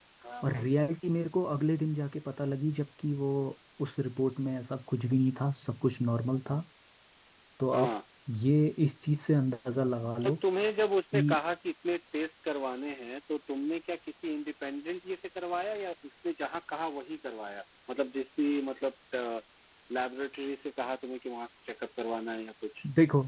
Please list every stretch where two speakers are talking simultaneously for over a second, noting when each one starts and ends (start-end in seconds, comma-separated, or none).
none